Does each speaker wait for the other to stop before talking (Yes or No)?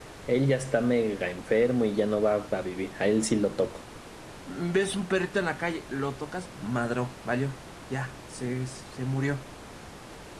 Yes